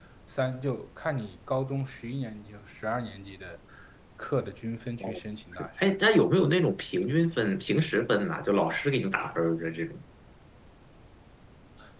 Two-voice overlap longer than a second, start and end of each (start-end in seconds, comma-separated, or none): none